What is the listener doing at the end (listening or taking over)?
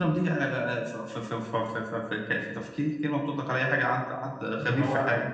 taking over